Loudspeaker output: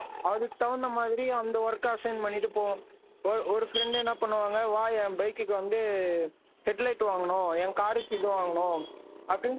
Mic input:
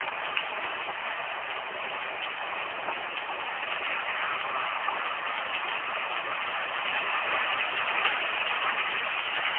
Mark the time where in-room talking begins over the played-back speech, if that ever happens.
none

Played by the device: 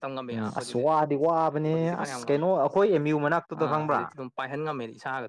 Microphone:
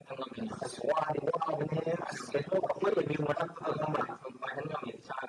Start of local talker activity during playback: none

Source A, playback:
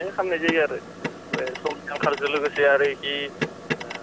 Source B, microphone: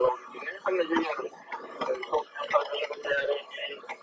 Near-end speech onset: none

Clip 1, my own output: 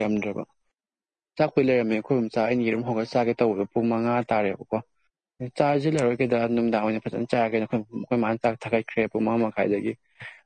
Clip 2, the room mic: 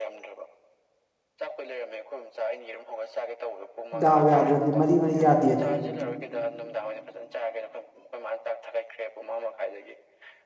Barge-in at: 3.9 s

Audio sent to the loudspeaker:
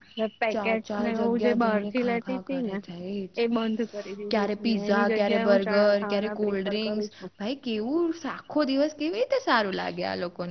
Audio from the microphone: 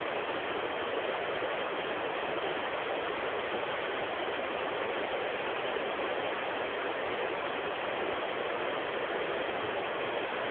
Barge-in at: none

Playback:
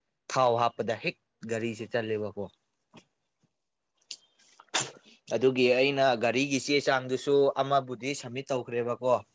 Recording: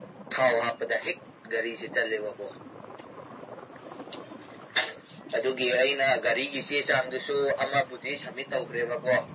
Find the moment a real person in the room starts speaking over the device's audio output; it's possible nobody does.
none

